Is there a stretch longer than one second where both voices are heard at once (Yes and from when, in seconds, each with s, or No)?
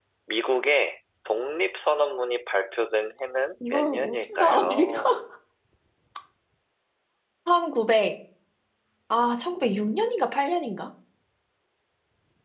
Yes, from 3.6 s